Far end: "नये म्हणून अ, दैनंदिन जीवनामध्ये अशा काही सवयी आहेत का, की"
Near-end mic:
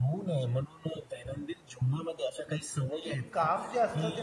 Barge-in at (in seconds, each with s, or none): 3.0 s